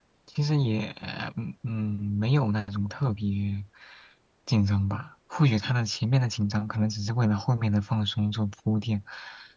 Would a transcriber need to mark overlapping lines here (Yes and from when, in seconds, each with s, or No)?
No